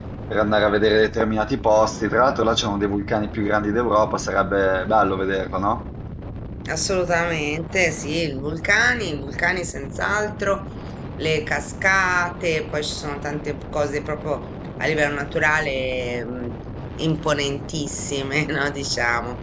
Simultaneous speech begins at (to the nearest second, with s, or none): none